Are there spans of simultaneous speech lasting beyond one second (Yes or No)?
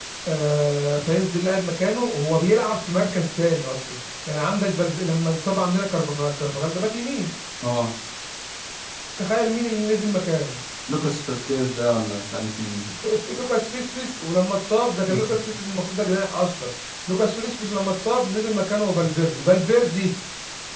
No